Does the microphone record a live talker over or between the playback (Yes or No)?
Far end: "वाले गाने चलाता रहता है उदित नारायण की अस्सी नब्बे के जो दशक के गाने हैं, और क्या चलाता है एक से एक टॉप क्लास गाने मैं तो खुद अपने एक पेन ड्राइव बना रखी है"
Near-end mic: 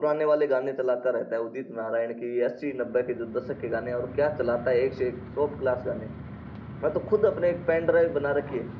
No